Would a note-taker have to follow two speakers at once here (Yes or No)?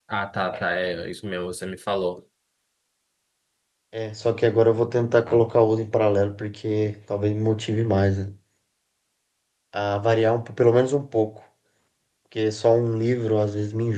No